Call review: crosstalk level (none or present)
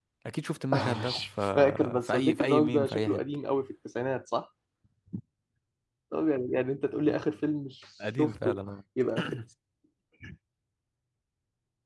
present